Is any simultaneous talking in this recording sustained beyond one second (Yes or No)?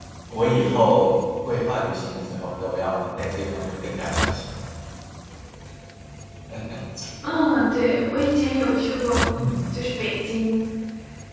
No